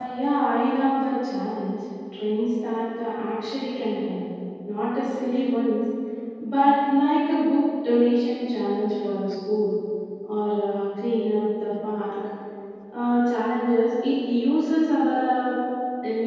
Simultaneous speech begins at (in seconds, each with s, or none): none